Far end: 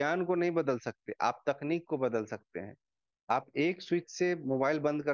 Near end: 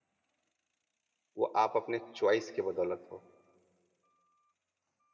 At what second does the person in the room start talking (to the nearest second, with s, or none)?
1 s